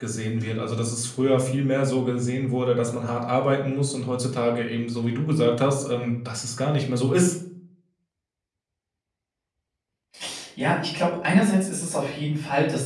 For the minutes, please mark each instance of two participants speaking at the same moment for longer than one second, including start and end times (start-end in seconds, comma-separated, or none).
none